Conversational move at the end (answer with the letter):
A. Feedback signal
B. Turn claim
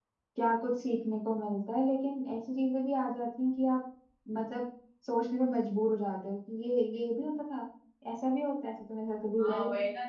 B